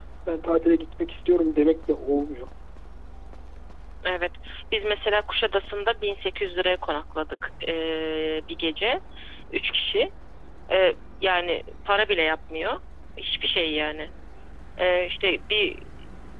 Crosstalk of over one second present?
No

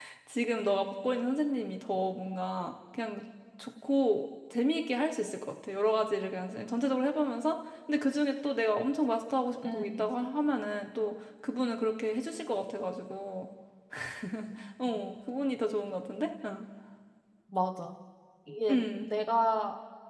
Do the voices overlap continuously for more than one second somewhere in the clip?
No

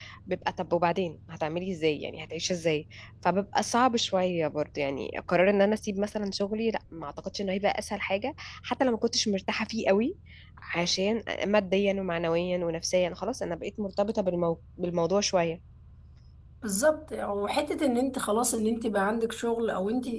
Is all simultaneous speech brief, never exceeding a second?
Yes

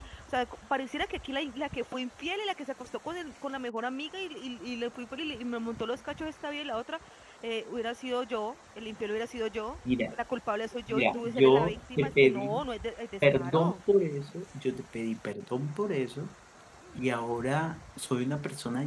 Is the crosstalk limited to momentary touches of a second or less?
No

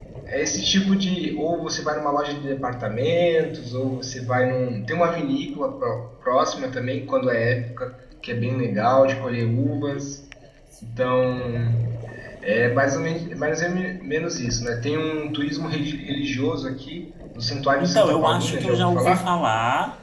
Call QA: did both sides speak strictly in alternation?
No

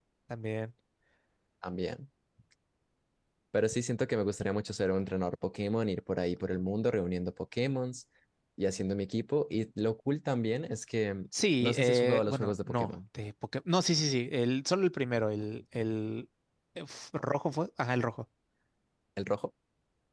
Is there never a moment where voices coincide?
No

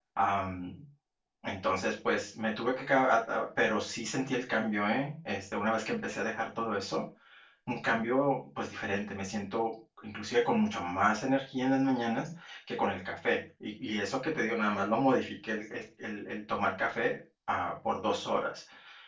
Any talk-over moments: No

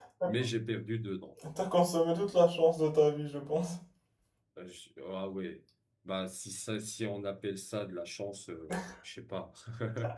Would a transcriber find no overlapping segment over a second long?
Yes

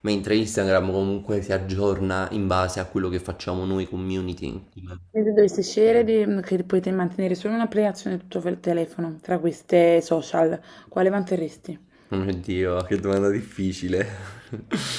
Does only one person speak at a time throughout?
Yes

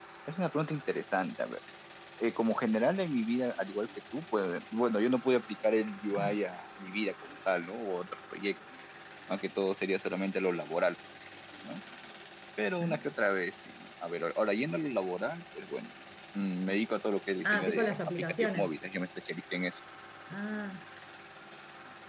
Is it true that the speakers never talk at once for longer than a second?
No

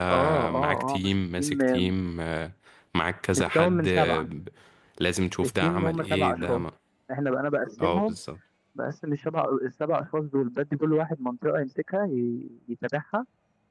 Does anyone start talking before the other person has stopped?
Yes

